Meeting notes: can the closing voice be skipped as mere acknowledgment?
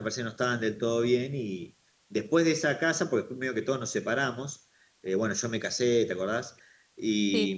Yes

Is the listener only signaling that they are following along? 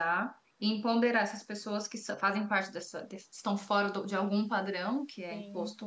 Yes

